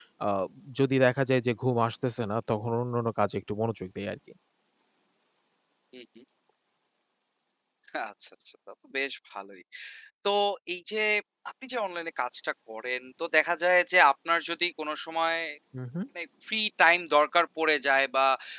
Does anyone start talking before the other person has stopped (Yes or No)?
No